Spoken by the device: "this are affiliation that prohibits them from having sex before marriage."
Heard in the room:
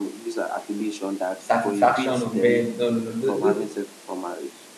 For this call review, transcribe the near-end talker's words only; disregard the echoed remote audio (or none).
satisfaction on bed no no no th- th-